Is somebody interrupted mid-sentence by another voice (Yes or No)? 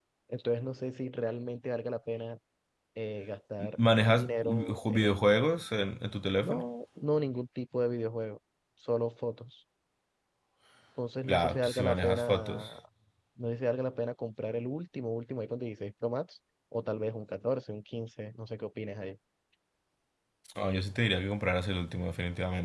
Yes